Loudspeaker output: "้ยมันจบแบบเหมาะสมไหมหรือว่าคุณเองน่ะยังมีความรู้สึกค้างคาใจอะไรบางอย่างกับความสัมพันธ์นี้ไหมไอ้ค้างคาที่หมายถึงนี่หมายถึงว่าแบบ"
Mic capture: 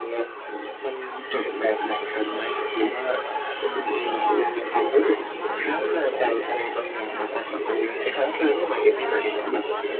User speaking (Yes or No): Yes